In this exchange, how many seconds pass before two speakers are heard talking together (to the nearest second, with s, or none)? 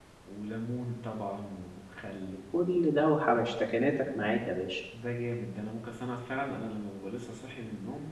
none